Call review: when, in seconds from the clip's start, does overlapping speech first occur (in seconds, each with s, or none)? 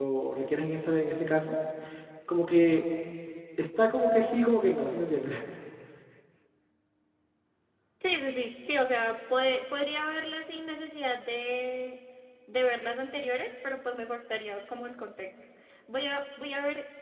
none